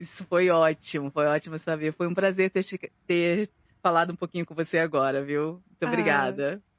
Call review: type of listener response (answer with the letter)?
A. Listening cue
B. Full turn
B